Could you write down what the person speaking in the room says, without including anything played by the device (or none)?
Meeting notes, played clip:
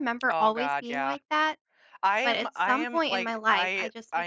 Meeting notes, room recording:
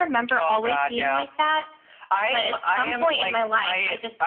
none